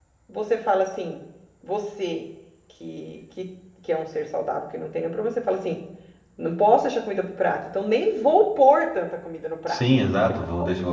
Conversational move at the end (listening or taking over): taking over